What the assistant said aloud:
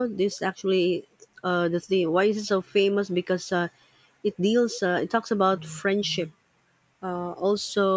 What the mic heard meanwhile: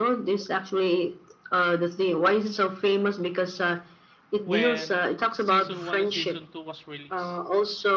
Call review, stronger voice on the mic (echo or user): echo